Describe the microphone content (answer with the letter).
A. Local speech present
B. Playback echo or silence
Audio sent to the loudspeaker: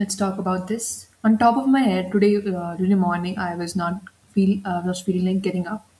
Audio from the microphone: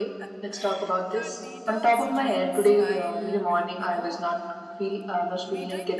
A